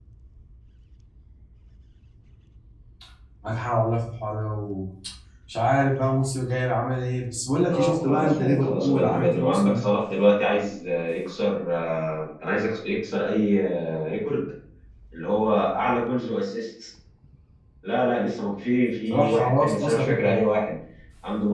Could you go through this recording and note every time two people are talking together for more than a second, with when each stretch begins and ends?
7.7-9.8, 19.1-20.3

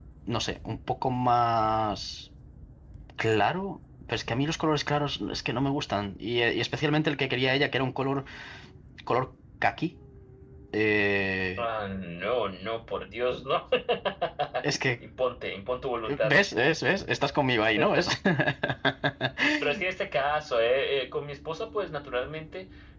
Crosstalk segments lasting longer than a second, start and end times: none

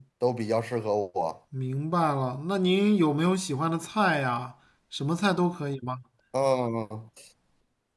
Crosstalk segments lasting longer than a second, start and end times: none

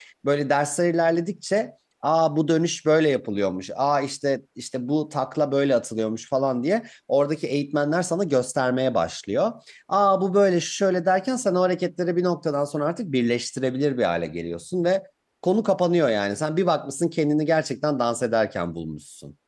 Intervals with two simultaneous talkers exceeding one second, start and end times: none

